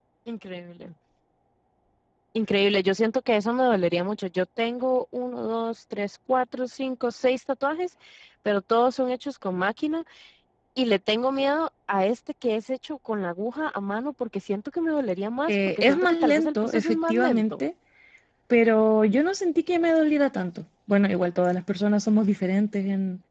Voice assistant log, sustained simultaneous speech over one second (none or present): present